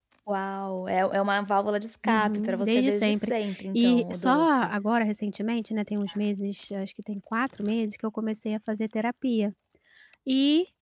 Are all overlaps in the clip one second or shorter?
No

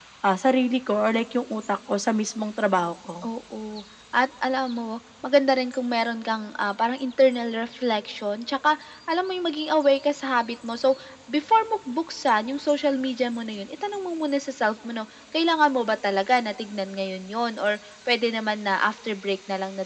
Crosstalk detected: No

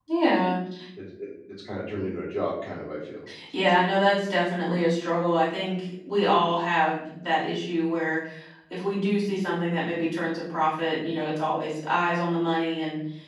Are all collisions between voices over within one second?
Yes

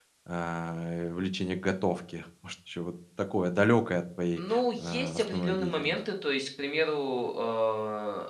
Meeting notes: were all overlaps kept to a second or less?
No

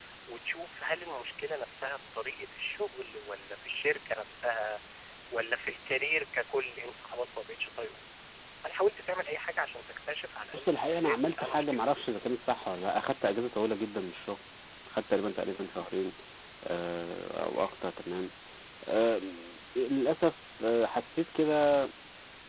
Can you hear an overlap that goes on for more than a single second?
Yes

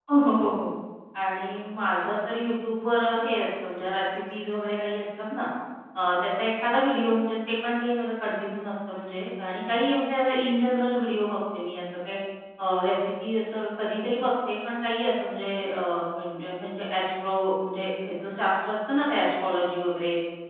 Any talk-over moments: No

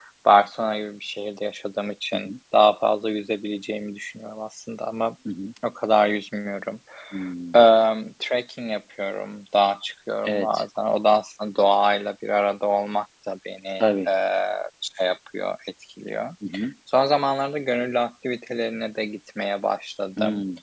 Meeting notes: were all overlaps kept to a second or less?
Yes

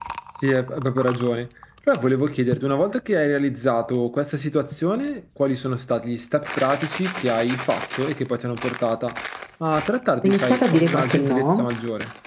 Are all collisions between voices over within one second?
No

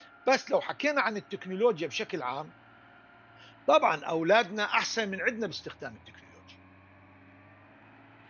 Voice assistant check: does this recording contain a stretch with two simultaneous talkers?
No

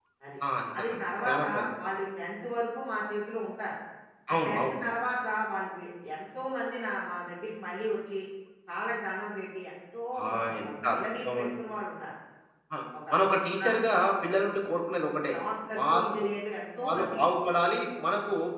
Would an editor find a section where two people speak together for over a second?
Yes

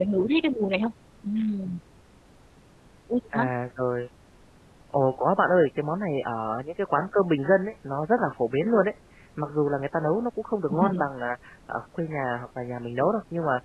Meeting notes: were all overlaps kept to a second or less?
Yes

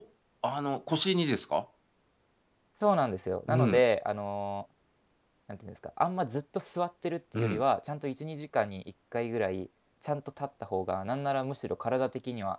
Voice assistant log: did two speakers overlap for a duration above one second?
No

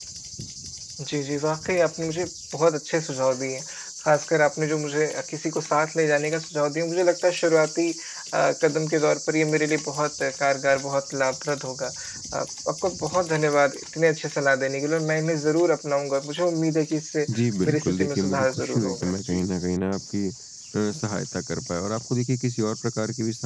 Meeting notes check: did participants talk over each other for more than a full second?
Yes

